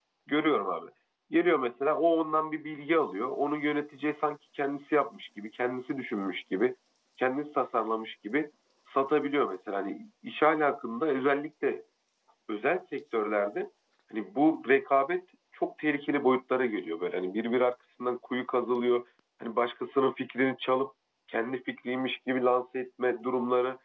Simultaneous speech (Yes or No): No